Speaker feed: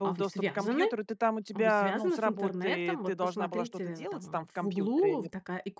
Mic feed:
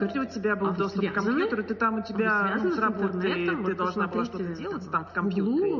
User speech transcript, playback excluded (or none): none